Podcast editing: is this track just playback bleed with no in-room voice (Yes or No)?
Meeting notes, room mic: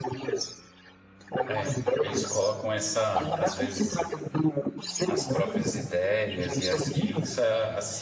No